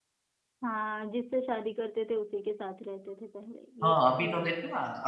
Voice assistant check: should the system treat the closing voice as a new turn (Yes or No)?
Yes